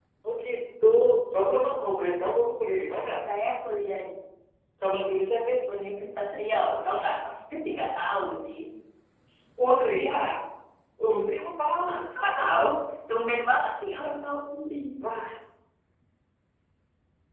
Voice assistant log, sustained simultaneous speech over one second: none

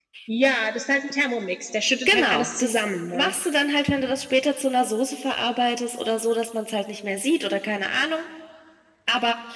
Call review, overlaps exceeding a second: present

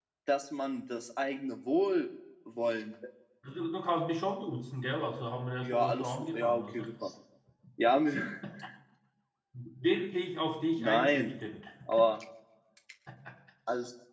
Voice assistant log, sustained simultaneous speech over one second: present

